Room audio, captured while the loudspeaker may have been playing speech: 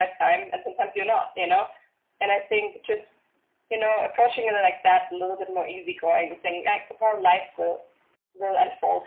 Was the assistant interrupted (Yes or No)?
No